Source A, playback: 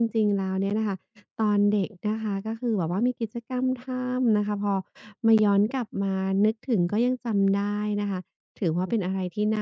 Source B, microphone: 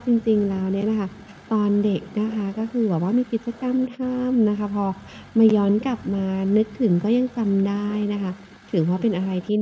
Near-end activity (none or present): none